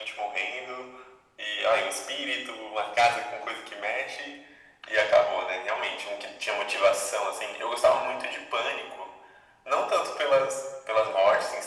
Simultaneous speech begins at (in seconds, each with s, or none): none